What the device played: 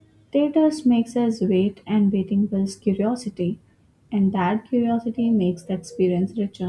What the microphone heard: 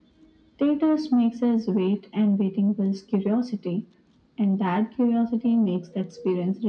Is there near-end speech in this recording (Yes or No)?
No